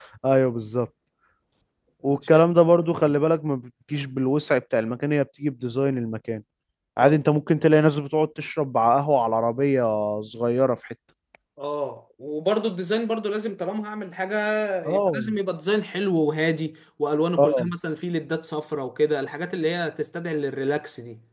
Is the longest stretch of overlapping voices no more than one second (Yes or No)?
Yes